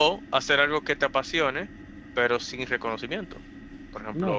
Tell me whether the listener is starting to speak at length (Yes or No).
Yes